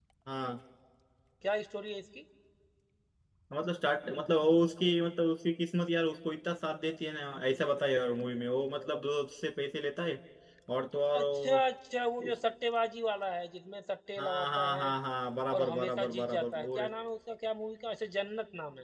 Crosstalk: present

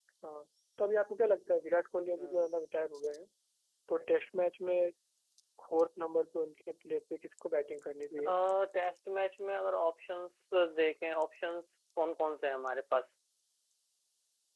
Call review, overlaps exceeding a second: none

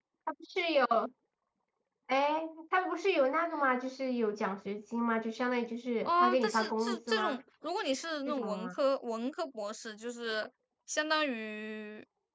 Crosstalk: present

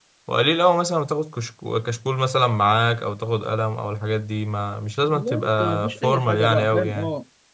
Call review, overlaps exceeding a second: present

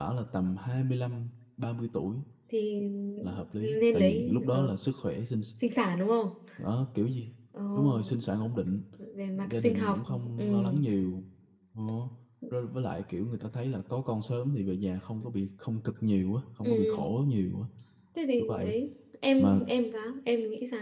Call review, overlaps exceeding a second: present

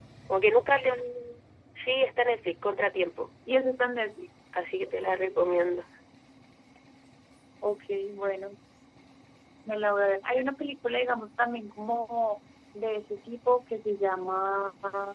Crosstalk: none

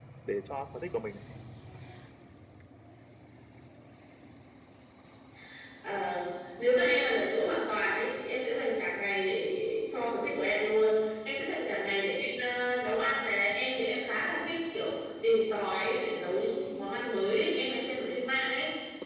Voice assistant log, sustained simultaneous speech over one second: none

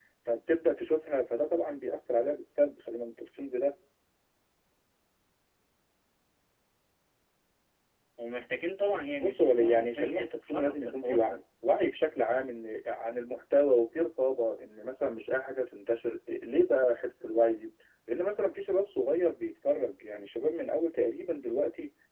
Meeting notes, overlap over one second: present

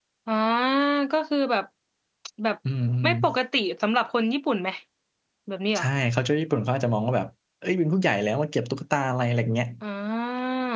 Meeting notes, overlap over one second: none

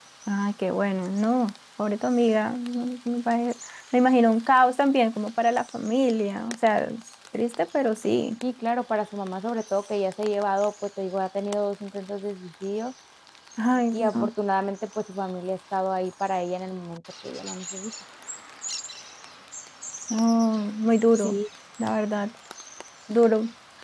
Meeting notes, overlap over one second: none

